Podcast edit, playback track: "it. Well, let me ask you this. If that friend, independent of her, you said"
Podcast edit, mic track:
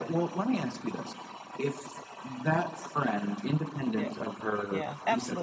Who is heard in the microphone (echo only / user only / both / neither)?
both